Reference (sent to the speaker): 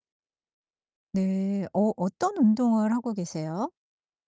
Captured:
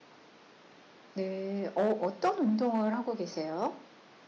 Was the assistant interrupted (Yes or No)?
No